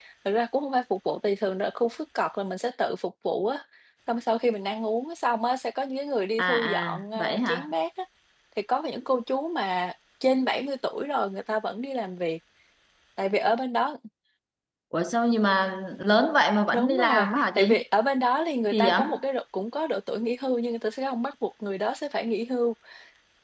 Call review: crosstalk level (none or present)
present